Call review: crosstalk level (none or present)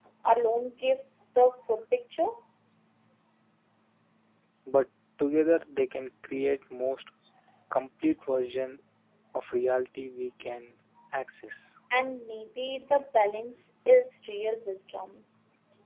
none